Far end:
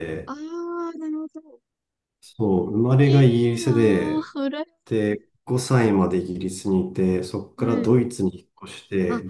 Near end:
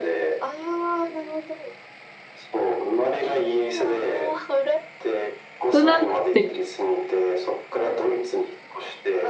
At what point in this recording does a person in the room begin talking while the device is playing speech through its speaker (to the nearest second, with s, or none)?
6 s